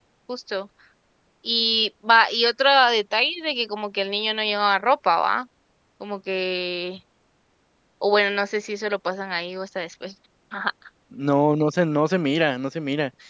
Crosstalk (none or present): none